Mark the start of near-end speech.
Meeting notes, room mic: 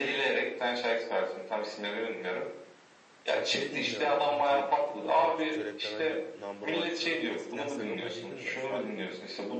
3 s

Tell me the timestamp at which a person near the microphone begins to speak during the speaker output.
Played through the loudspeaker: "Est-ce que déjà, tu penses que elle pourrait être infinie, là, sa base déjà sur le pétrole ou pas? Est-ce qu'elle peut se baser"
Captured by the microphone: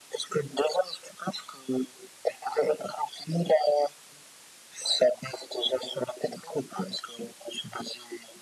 none

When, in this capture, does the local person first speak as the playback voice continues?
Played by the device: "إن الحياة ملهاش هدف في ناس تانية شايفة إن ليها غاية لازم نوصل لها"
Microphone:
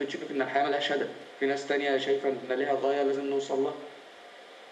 none

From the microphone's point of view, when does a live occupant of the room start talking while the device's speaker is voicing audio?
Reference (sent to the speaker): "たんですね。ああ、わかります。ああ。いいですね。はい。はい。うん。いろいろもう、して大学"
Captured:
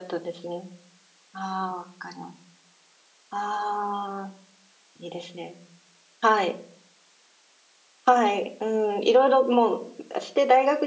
none

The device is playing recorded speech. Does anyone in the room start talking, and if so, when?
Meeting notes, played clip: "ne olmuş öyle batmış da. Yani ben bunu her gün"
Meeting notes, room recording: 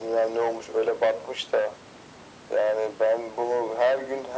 none

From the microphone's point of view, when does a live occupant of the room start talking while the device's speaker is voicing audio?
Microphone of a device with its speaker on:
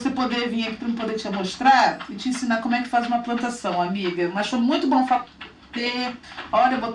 none

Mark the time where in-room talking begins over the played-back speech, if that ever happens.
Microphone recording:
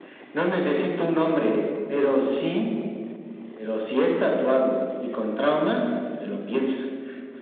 none

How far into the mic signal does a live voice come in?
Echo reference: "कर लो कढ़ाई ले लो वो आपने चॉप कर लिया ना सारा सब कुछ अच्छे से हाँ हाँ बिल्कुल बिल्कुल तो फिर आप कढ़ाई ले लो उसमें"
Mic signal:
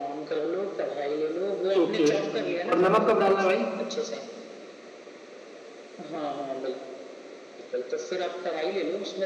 2 s

